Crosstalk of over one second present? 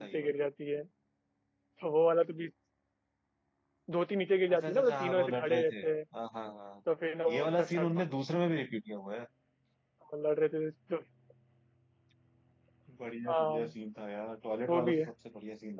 Yes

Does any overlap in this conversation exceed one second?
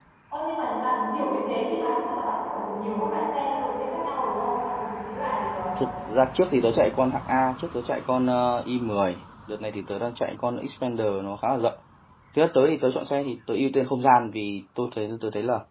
No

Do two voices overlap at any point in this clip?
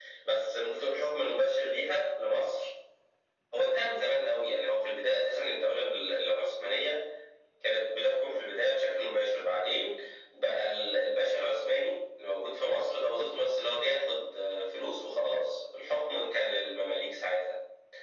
No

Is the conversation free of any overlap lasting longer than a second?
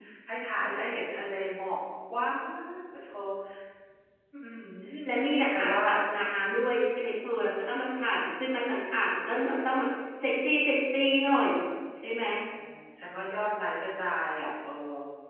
Yes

